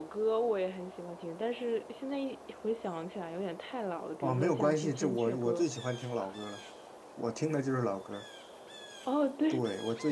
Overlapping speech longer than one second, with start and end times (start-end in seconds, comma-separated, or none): 4.2-5.6